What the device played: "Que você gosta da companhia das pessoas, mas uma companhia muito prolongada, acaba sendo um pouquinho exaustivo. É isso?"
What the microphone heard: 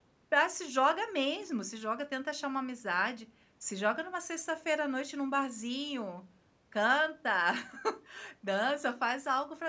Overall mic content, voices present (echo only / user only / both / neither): user only